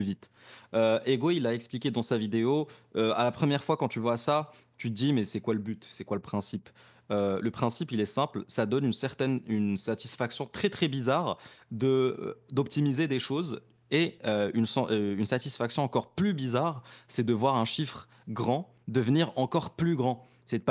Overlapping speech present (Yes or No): No